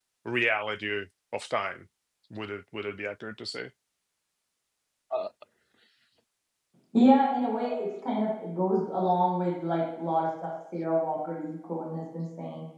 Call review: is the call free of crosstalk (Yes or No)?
Yes